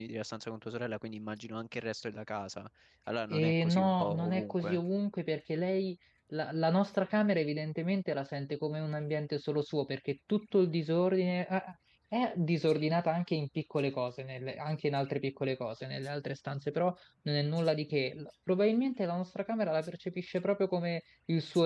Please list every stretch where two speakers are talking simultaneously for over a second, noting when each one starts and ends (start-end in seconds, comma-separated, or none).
3.3-4.8